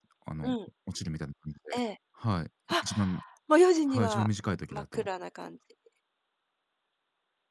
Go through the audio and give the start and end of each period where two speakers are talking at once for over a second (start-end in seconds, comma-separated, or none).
none